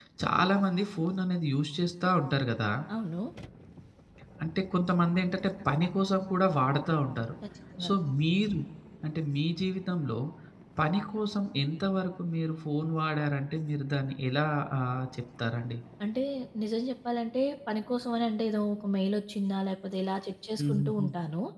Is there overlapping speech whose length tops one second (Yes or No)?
No